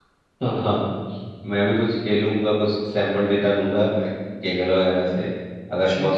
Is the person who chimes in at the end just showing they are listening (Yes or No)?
Yes